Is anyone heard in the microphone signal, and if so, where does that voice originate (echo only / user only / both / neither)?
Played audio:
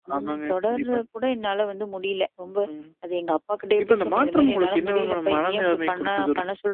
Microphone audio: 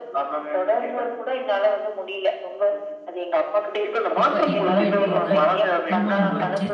both